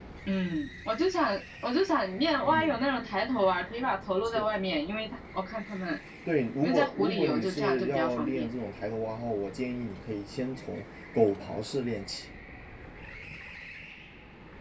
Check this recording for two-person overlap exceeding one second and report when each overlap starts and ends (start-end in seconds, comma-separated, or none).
6.6-8.5